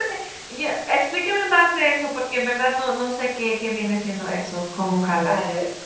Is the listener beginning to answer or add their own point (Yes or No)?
Yes